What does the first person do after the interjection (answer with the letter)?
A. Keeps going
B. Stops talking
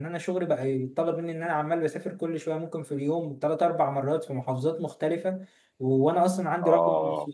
A